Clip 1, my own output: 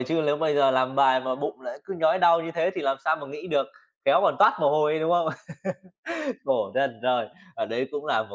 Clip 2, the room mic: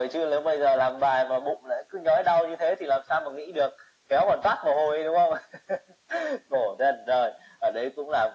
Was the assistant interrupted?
No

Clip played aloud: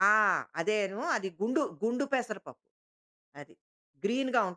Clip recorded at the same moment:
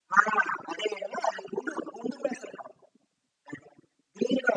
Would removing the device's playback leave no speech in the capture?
Yes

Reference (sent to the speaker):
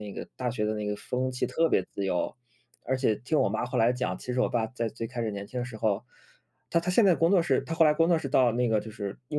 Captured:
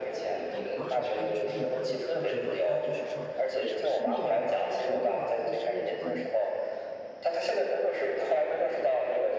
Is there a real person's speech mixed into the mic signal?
Yes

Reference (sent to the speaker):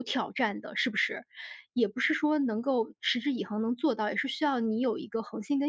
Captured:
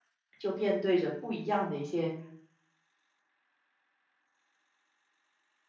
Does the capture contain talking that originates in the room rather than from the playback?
Yes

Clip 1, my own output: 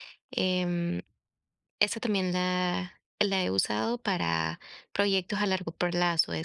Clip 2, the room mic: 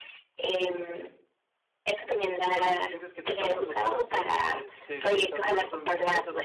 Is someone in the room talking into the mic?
Yes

